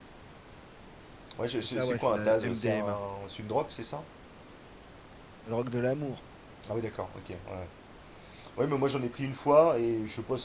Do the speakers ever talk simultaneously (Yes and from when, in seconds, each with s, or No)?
Yes, from 1.8 s